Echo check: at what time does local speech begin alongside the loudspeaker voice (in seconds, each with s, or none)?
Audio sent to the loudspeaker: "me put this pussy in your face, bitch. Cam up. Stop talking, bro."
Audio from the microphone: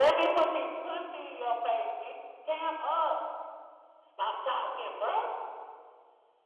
none